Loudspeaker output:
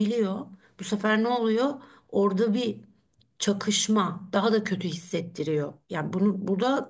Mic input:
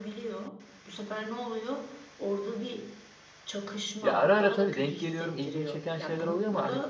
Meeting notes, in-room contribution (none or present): present